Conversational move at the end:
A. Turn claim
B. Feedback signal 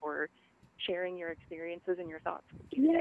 A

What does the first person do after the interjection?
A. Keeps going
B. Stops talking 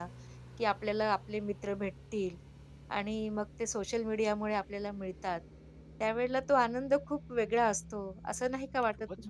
B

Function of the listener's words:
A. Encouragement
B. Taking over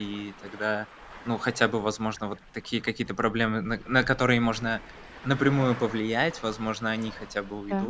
A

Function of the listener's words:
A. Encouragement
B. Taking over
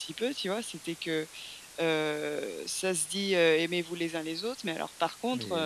A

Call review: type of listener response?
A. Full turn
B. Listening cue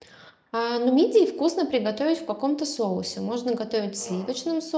B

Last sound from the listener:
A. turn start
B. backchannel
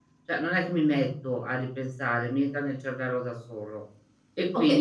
A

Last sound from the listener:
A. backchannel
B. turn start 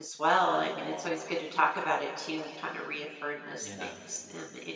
A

